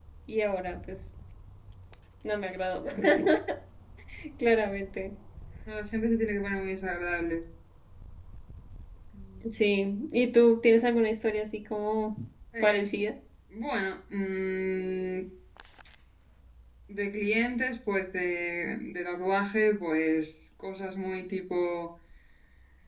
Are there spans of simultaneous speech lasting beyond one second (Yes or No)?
No